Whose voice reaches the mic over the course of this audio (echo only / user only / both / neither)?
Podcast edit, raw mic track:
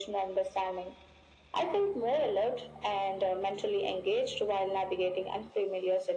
echo only